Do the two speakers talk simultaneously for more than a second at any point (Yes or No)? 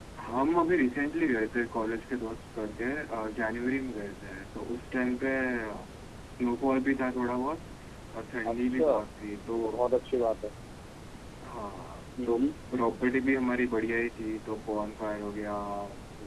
No